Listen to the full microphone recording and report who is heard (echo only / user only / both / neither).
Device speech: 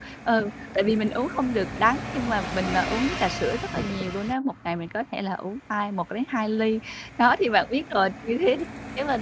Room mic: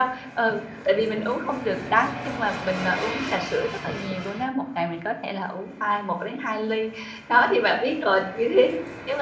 echo only